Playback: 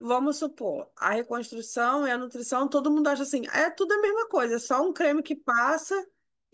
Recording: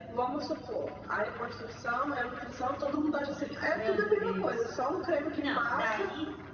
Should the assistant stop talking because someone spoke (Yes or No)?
Yes